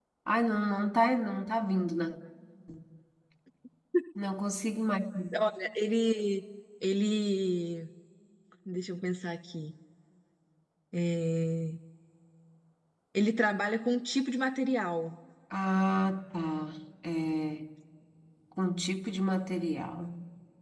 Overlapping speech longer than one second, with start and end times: none

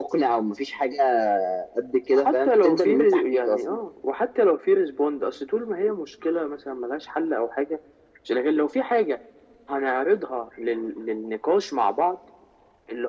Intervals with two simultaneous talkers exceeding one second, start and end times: 2.1-3.8

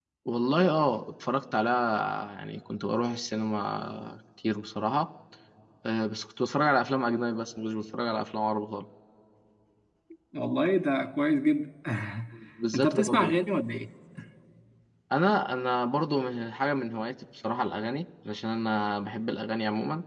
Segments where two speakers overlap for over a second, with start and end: none

